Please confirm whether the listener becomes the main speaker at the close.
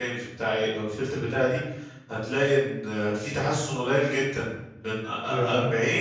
No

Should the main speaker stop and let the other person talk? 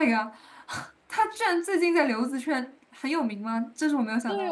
Yes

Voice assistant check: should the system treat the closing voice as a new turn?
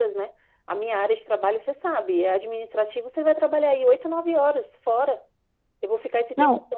No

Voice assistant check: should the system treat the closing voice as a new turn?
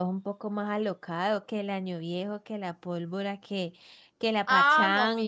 Yes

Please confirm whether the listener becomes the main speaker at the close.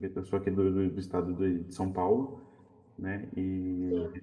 No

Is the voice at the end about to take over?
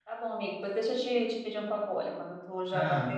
No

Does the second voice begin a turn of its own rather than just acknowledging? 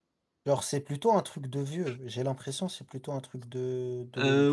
Yes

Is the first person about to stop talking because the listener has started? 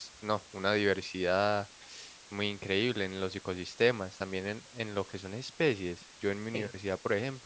No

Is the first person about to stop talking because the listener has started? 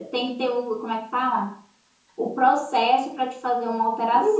Yes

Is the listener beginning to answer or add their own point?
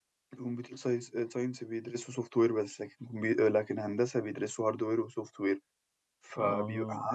No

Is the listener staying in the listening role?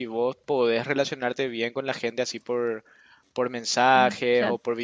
Yes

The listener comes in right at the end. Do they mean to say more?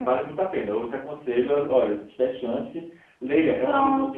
No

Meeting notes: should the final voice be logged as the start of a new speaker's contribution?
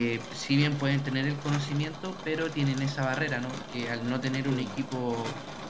No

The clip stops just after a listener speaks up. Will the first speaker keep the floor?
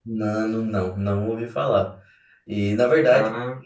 Yes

